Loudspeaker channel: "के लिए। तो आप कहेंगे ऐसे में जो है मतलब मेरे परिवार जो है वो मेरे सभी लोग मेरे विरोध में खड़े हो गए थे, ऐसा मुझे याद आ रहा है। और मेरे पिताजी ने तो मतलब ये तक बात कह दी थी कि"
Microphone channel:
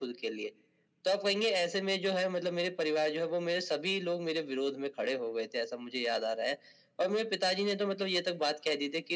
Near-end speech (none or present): none